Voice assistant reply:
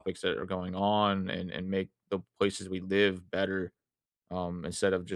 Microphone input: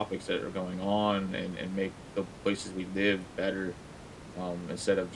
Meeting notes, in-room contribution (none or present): none